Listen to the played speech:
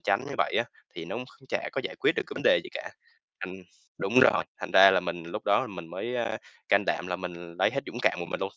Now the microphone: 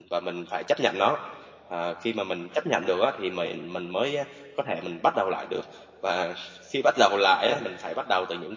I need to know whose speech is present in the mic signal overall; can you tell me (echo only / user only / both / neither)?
user only